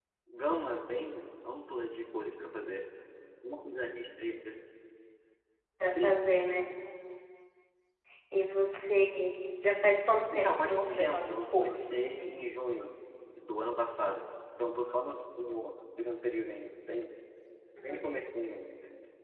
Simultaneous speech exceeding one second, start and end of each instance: 10.3-12.1

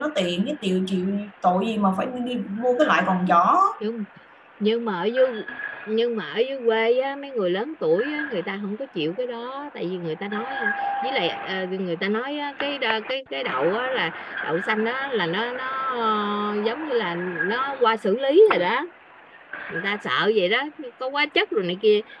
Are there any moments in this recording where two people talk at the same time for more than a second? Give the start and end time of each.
none

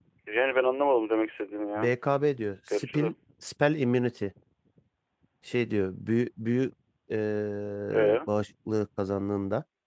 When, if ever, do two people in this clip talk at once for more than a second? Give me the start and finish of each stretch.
none

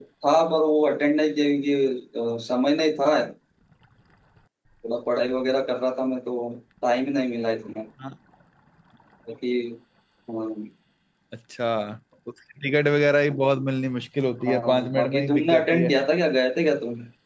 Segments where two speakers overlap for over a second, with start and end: 14.5-15.9

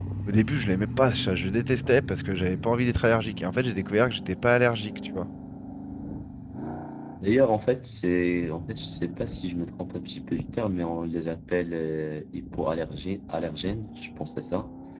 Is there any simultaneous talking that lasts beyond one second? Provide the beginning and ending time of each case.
none

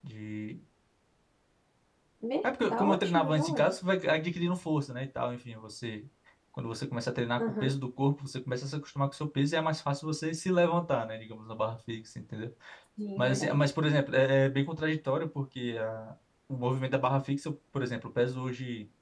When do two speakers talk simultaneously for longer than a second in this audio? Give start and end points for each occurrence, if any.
2.4-3.7

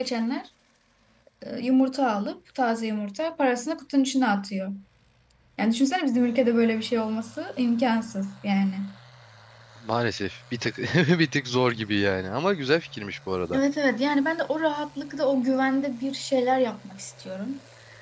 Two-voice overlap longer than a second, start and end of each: none

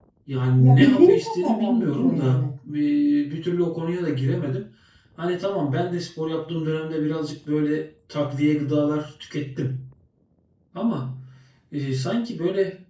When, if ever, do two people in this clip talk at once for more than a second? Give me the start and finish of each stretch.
0.6-2.5

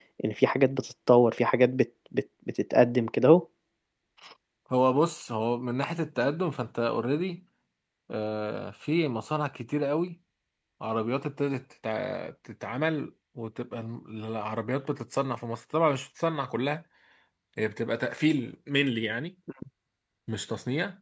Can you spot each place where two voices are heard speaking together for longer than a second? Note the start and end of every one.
none

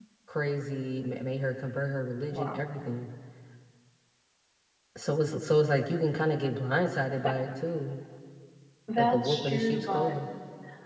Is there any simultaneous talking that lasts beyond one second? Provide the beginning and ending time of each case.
9.0-10.2

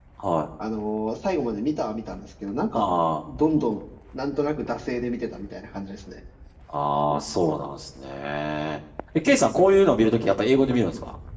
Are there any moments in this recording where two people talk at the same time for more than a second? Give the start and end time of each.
none

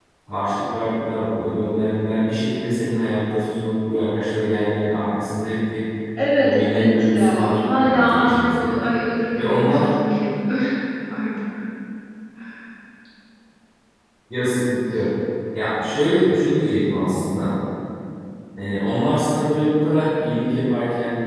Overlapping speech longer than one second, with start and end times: 6.4-8.8

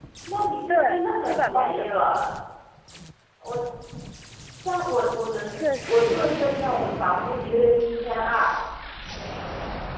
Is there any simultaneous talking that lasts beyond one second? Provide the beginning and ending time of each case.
0.7-1.9

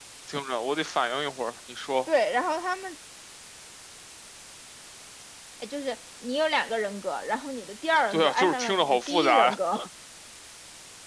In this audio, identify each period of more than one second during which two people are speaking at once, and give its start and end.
8.1-9.6

